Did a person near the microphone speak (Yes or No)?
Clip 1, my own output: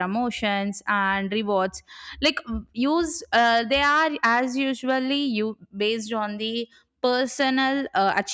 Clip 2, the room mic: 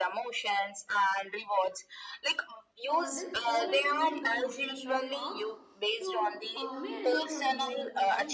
Yes